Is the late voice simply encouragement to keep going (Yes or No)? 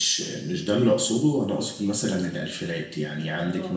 Yes